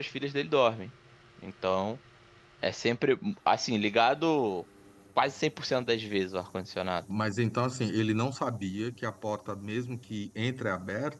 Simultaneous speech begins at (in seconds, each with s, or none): none